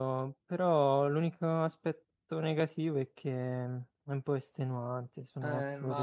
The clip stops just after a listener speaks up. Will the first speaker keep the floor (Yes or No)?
No